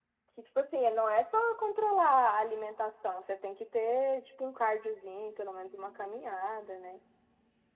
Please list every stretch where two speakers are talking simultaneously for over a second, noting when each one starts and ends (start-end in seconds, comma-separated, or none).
none